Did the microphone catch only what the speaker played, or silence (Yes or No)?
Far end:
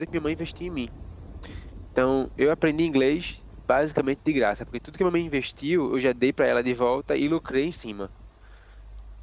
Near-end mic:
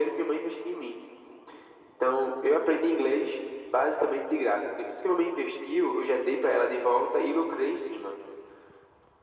Yes